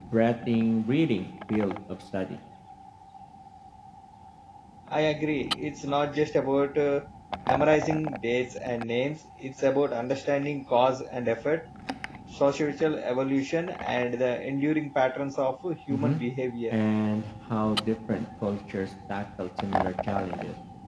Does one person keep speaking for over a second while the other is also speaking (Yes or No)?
No